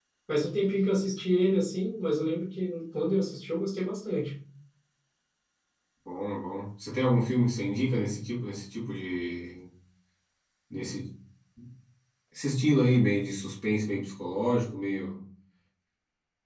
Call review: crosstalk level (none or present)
none